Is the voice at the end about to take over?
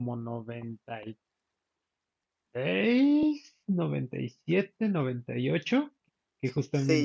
Yes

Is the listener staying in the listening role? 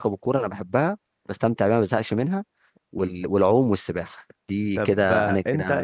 No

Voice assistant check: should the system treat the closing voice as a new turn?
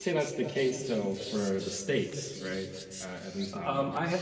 Yes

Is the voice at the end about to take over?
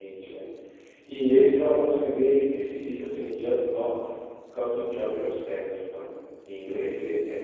No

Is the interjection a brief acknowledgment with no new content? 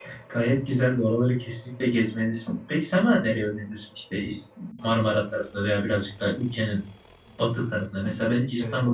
Yes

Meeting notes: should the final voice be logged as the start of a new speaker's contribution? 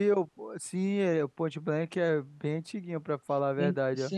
Yes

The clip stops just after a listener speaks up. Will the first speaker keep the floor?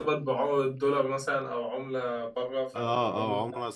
No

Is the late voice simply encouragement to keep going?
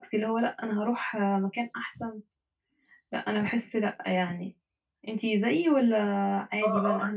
No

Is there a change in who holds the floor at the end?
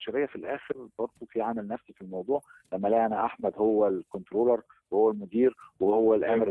No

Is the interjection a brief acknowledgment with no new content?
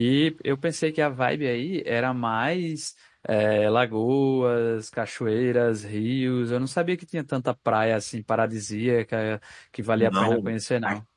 No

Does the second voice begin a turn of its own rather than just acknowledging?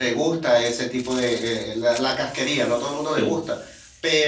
No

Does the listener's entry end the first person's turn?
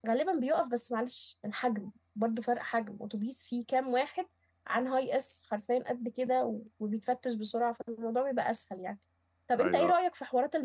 No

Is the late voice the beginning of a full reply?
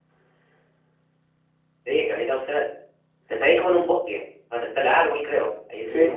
Yes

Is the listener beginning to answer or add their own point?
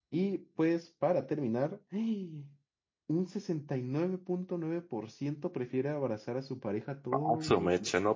Yes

